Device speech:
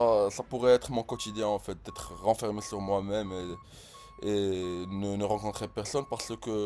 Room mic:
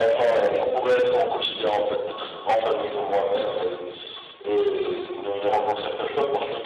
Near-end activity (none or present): none